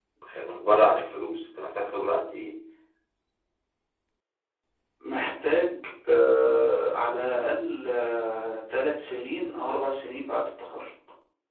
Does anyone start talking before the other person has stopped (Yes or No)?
No